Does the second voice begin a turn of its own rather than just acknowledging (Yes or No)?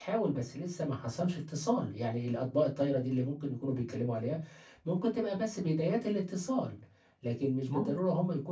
No